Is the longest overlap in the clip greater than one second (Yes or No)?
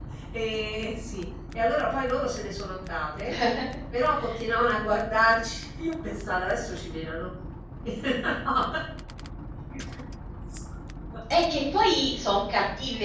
No